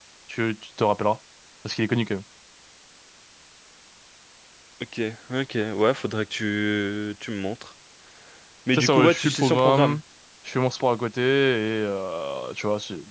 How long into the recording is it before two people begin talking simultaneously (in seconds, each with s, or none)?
8.7 s